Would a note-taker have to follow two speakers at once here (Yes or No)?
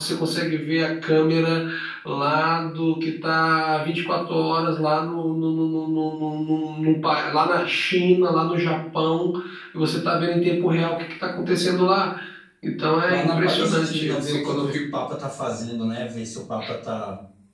Yes